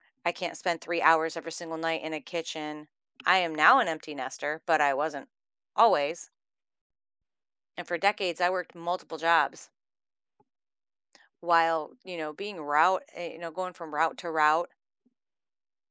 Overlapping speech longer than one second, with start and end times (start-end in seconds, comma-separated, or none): none